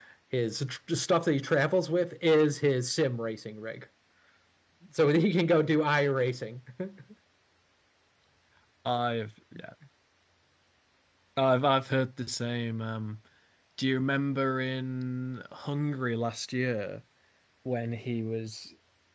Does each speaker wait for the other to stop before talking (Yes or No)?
Yes